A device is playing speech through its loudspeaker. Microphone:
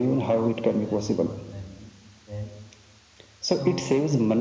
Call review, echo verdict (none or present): present